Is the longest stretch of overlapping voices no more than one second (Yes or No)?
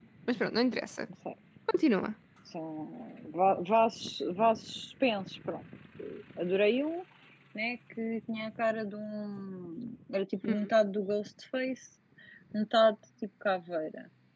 Yes